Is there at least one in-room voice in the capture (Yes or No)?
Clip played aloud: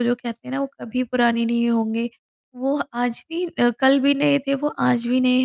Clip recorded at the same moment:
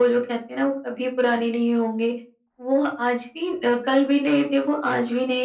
No